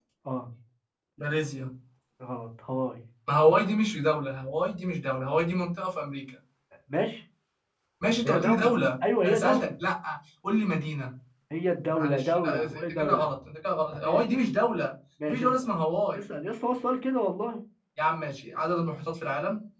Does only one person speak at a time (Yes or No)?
No